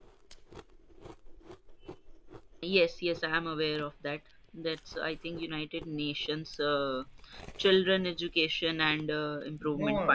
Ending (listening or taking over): taking over